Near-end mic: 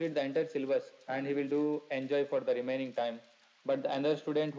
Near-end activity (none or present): none